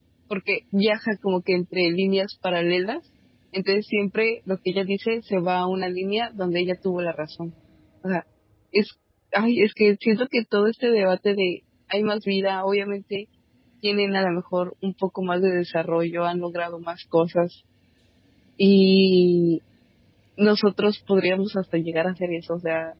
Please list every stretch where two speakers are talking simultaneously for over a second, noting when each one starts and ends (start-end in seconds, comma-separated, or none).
none